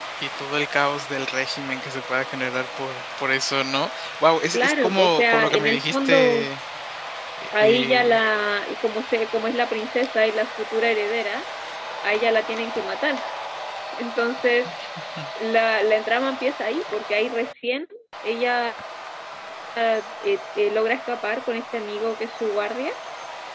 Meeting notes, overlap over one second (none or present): present